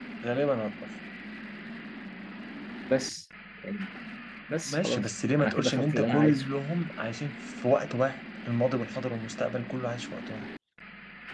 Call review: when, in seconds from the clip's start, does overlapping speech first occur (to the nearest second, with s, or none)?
5 s